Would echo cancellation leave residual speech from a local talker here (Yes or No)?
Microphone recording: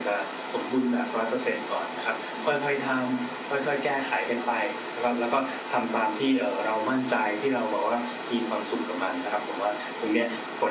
Yes